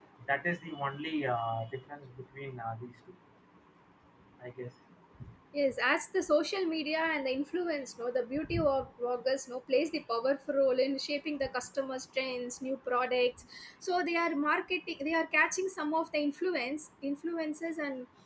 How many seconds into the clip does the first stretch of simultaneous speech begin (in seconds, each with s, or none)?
none